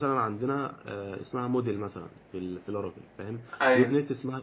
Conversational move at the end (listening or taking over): listening